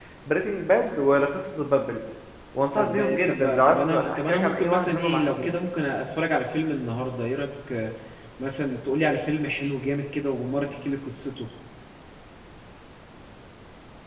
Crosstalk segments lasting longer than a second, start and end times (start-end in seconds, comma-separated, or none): 2.8-5.5